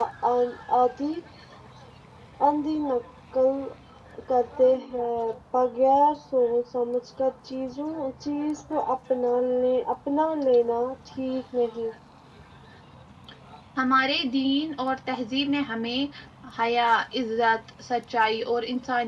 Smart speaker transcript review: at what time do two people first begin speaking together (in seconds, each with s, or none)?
none